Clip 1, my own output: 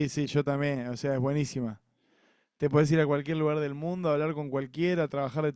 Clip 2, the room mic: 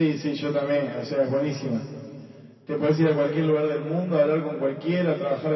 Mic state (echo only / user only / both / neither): echo only